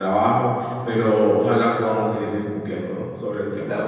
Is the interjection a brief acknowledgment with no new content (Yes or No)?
No